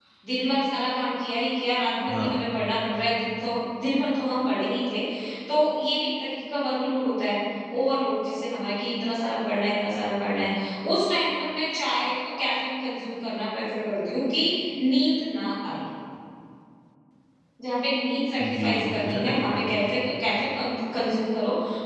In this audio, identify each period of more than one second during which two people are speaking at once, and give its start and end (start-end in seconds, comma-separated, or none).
18.4-19.9